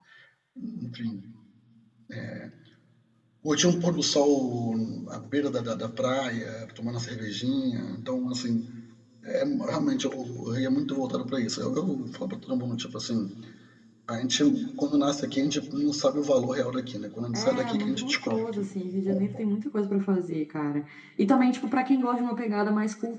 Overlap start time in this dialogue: 17.3 s

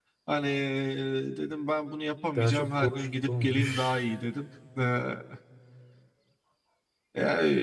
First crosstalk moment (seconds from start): 2.4 s

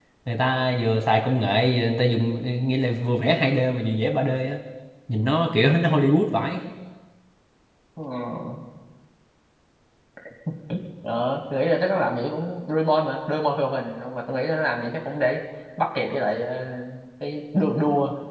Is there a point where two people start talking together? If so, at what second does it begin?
none

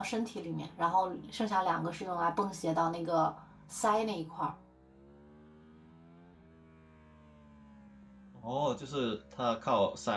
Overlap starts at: none

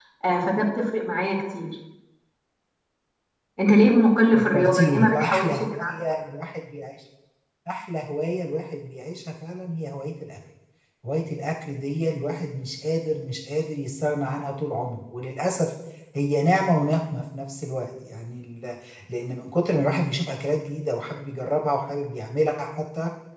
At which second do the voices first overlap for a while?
4.3 s

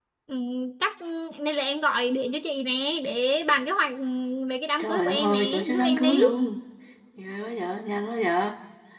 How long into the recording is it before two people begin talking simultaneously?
4.8 s

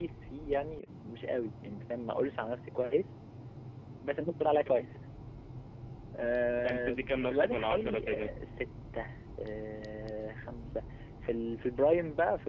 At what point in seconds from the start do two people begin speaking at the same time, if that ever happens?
6.6 s

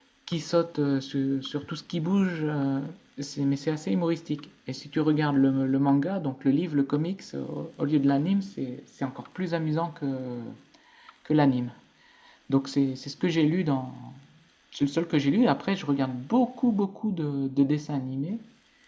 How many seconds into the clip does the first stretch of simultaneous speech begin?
none

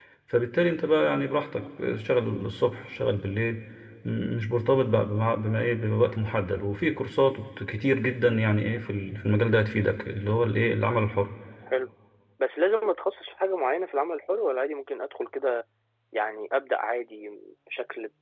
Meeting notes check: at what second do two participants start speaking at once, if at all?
none

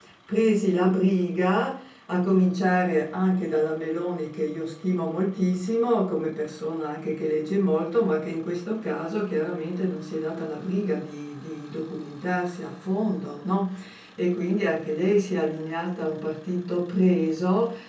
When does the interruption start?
none

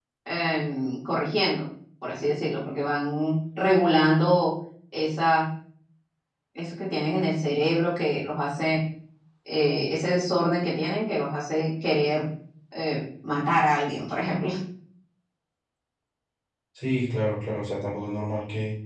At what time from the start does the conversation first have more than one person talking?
none

